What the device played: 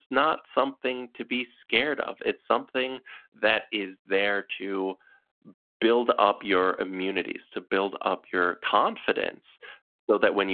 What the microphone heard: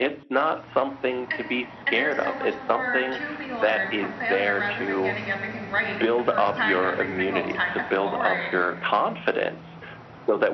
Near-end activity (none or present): present